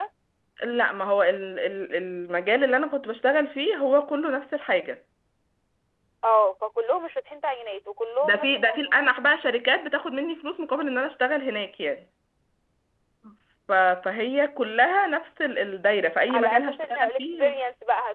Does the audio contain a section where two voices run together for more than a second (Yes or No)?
Yes